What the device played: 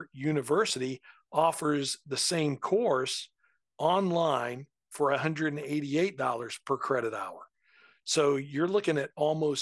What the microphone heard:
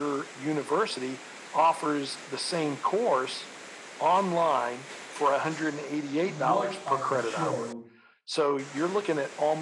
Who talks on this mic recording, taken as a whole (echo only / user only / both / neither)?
both